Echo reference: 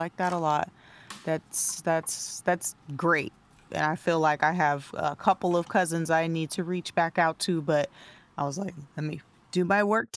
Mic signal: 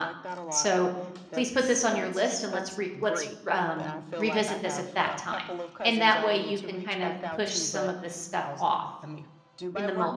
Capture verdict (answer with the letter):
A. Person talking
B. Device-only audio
A